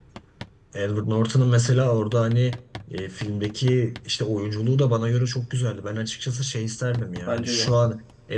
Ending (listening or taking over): listening